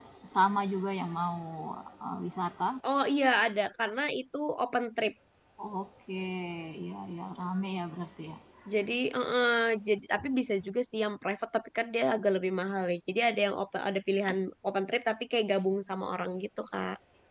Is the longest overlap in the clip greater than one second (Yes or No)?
No